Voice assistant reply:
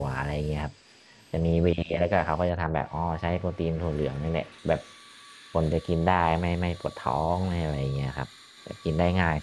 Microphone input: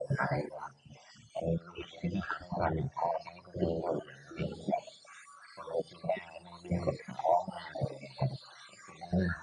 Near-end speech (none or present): none